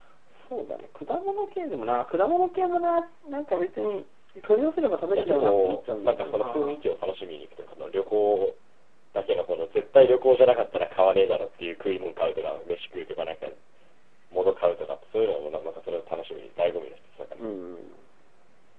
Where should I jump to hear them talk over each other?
5 s

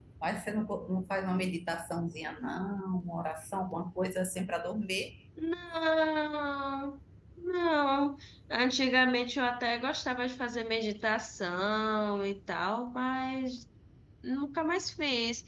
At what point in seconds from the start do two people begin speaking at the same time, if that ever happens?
none

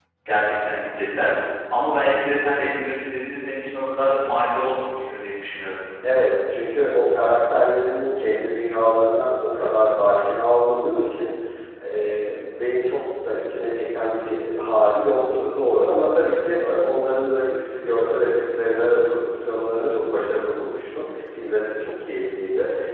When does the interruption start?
none

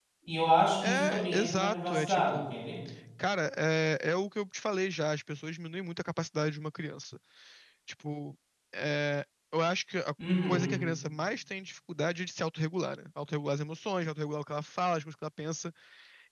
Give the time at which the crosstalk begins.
1 s

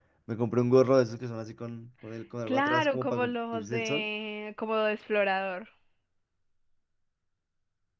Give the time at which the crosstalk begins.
2 s

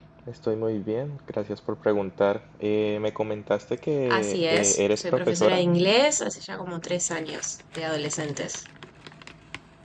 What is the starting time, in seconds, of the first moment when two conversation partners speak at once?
4 s

